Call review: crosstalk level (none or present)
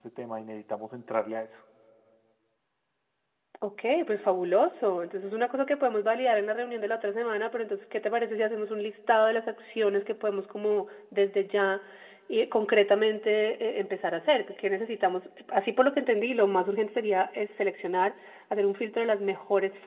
none